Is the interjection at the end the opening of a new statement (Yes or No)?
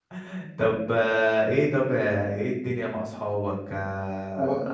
No